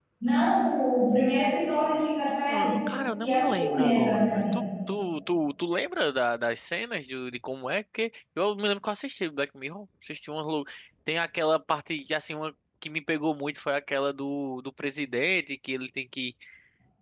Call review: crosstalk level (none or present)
present